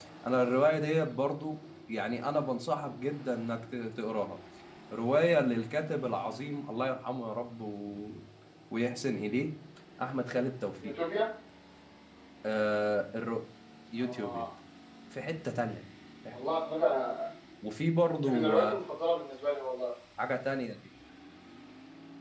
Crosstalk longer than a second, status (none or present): none